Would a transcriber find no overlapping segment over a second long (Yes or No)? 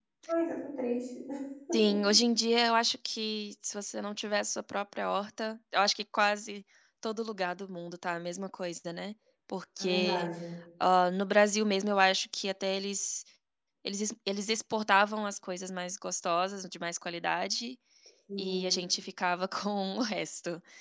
Yes